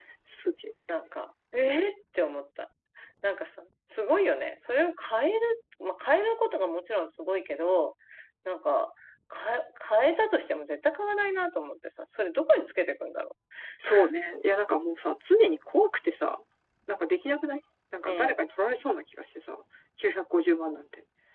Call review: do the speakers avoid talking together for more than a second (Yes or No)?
Yes